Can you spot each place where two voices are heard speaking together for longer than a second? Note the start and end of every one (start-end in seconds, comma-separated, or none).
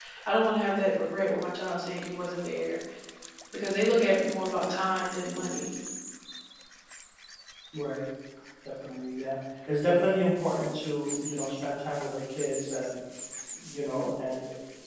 none